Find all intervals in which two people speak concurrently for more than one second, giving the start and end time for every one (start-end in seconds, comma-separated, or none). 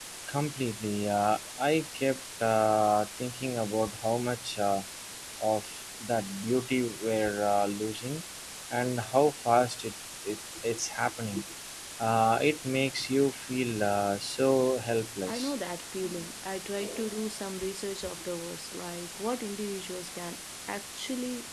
none